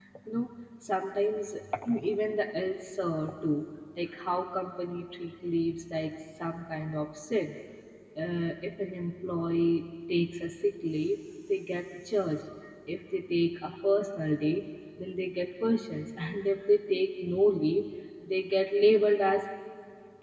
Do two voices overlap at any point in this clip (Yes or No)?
No